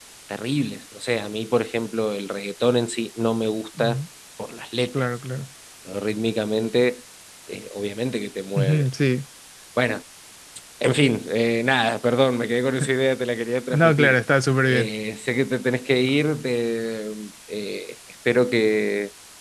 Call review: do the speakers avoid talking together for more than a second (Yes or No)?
Yes